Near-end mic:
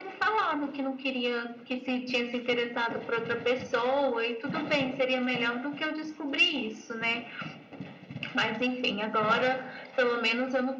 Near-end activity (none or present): none